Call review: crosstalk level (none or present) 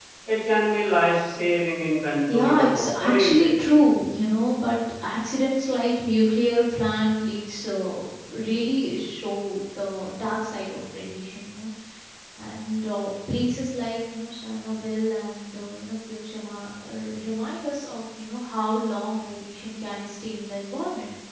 present